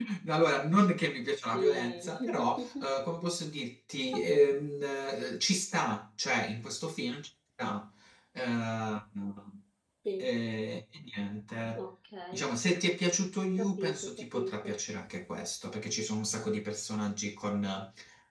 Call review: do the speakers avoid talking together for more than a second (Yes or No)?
No